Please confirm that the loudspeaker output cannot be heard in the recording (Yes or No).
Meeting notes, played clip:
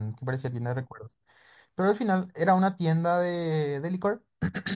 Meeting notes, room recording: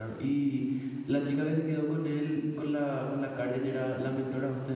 Yes